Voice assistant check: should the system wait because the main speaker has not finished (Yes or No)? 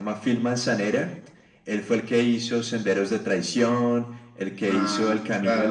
No